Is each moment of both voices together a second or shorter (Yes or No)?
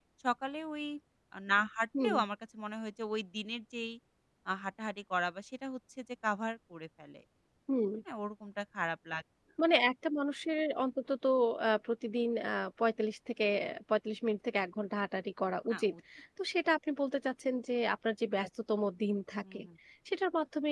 Yes